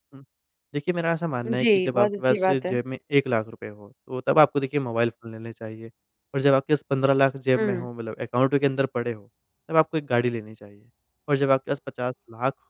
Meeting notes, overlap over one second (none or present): present